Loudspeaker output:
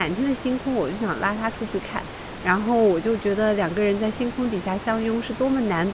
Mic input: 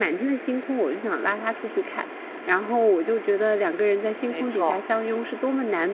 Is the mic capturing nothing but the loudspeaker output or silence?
No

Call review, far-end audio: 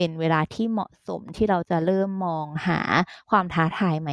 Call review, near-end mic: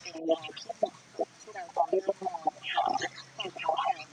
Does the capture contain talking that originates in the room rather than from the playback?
No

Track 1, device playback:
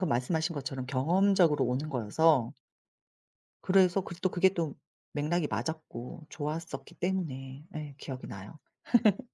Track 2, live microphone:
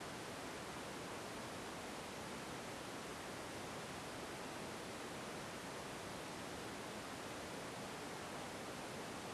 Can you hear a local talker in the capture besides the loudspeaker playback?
No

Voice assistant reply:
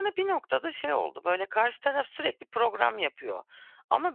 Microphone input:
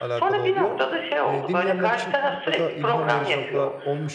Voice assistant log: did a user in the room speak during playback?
Yes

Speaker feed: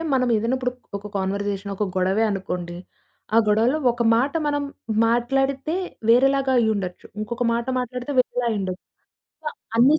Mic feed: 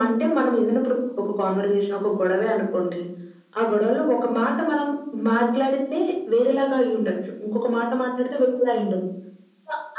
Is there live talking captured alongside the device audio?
No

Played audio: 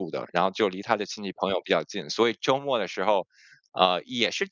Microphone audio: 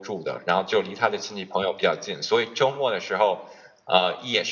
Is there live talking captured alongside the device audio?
No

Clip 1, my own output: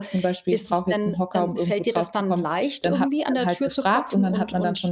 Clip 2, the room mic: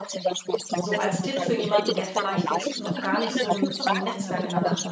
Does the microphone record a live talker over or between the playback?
Yes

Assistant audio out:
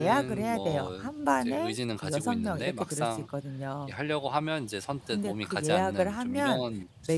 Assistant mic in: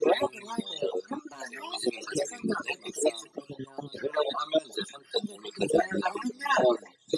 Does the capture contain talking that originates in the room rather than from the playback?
No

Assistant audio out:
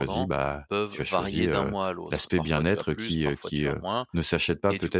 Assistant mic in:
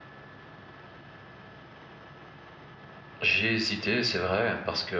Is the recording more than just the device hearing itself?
Yes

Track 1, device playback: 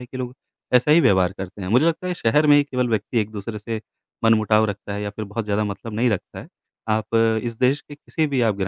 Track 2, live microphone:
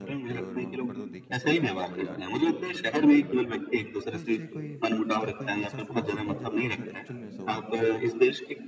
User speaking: Yes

